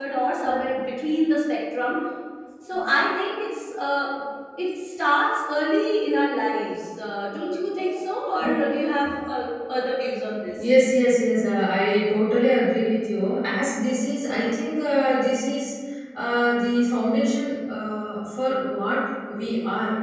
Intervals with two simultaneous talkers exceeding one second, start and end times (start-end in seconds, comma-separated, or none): none